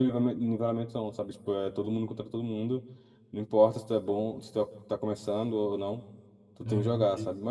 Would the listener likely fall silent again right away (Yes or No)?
Yes